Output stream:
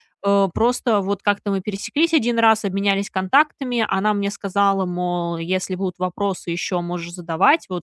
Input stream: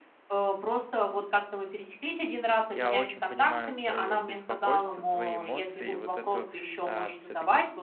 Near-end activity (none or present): present